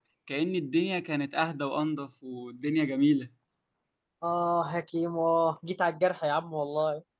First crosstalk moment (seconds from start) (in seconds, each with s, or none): none